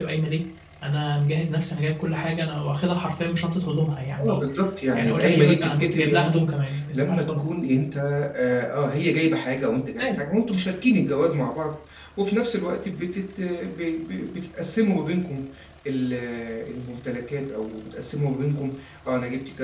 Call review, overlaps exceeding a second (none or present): present